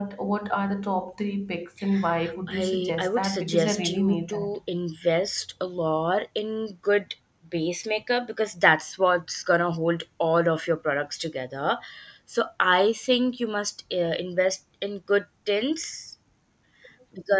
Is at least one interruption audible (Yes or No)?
Yes